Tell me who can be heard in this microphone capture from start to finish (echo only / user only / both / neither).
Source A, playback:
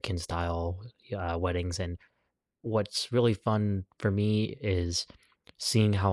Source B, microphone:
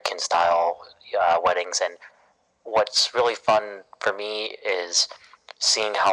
echo only